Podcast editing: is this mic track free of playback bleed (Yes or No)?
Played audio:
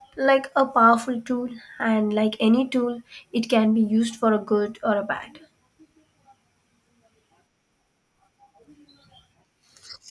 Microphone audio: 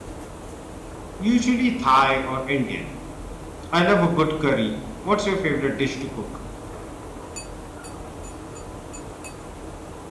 Yes